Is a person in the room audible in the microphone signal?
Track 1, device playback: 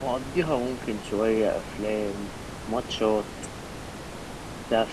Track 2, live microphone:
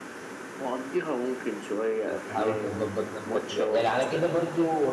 Yes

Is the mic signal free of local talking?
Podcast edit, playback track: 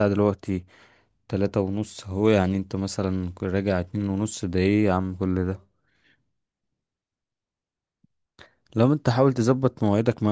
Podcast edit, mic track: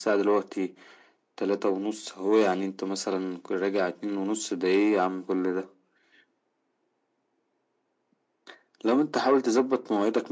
Yes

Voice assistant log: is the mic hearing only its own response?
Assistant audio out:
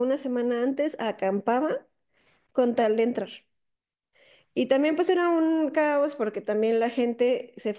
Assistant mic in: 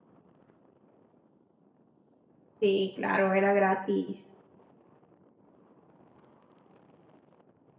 No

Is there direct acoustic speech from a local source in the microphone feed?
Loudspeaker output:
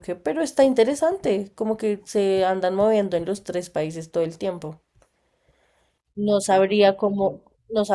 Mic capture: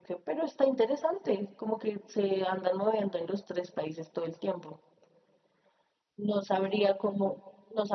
No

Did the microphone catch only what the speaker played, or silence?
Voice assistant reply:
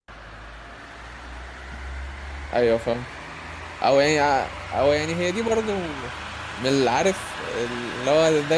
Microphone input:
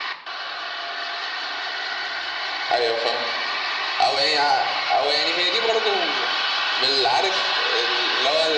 Yes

